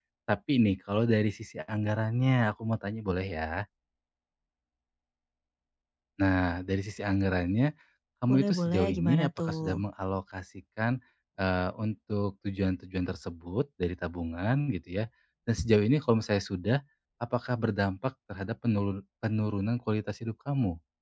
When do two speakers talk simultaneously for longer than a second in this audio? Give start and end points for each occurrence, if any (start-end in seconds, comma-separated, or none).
8.3-9.8